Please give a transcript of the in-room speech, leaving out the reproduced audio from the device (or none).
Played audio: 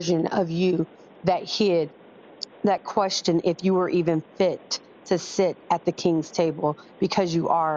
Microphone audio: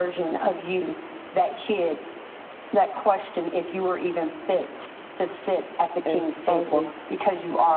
as always